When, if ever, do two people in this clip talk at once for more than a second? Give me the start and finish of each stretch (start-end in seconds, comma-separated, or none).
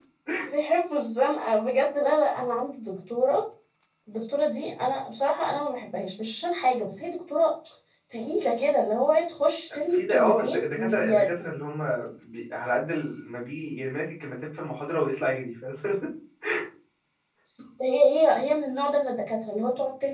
9.9-11.3